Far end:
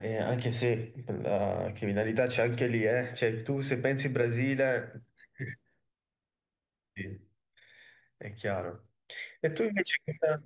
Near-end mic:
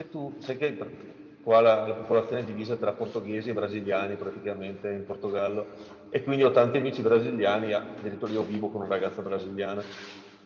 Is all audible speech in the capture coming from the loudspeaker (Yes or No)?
No